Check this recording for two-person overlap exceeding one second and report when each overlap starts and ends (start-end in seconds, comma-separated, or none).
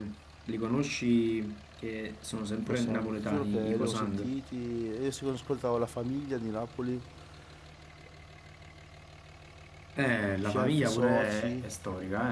2.7-4.4, 10.4-11.6